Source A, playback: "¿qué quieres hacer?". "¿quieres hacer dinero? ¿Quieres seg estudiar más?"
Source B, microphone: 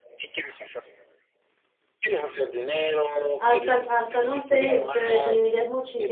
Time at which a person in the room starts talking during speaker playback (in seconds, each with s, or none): 3.4 s